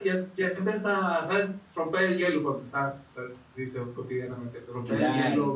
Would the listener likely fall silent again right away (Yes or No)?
Yes